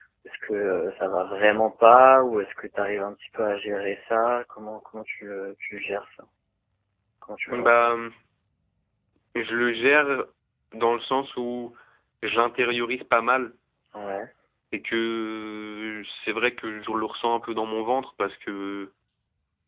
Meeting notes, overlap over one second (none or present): none